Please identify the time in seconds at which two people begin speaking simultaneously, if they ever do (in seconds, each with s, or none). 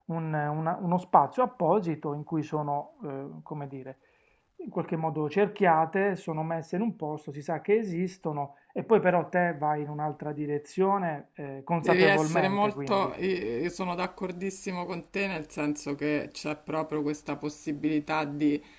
11.8 s